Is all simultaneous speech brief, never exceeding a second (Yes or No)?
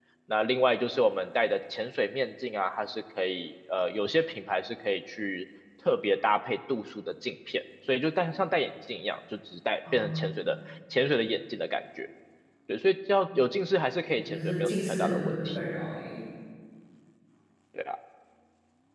No